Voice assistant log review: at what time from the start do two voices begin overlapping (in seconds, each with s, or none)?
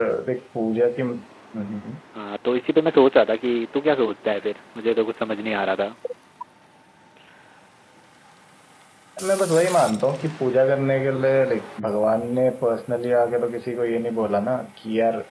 none